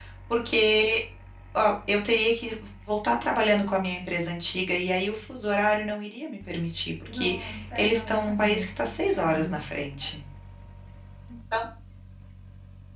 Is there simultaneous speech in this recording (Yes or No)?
Yes